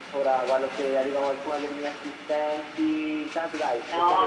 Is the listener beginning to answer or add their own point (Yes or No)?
Yes